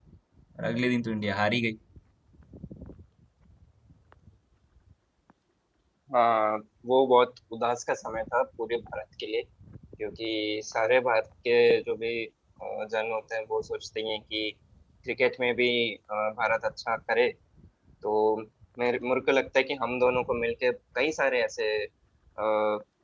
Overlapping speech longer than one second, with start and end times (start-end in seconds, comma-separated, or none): none